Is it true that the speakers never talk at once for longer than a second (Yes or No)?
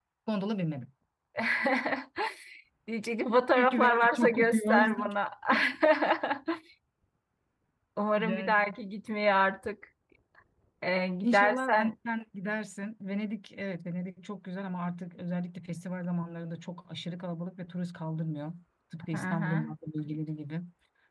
No